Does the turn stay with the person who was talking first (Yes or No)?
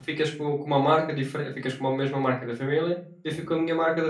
Yes